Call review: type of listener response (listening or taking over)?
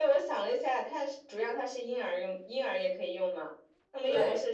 listening